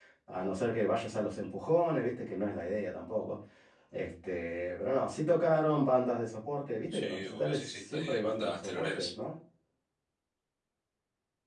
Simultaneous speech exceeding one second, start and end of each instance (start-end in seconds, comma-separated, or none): 6.9-9.1